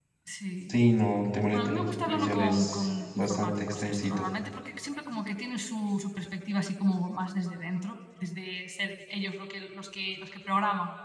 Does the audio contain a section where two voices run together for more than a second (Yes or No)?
Yes